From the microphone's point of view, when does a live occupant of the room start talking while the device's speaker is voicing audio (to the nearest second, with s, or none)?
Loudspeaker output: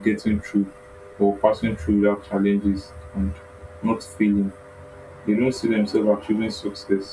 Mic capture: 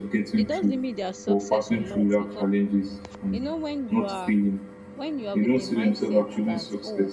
0 s